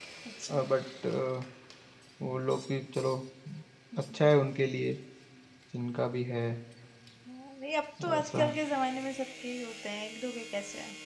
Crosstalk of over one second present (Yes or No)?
No